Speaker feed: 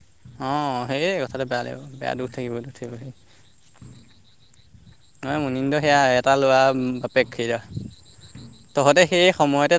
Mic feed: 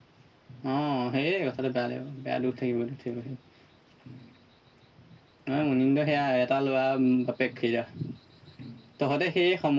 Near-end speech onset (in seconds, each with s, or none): none